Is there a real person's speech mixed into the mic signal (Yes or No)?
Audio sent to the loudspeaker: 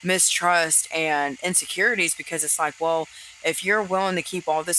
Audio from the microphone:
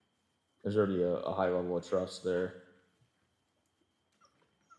Yes